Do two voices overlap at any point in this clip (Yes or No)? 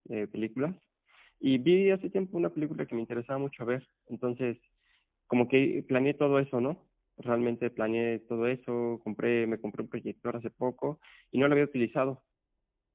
No